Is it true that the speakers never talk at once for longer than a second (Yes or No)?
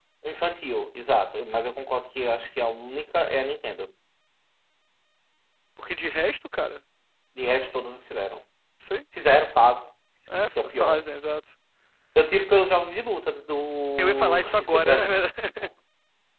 No